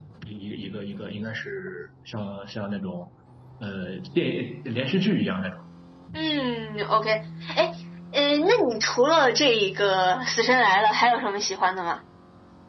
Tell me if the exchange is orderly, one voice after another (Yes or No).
Yes